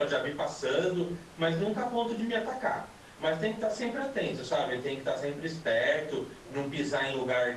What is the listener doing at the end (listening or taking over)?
listening